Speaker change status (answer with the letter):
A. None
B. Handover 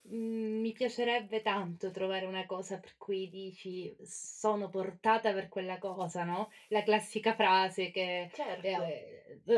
A